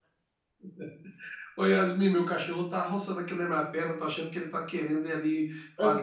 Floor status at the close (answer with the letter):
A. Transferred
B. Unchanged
B